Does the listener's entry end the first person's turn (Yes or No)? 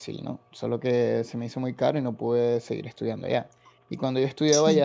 No